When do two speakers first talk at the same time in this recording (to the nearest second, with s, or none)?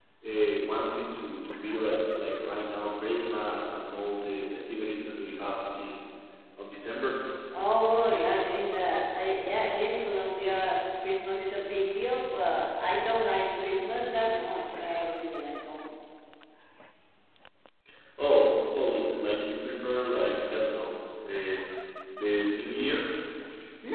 none